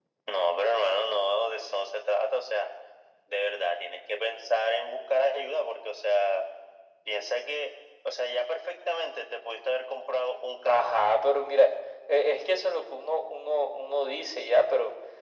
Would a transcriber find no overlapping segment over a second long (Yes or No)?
Yes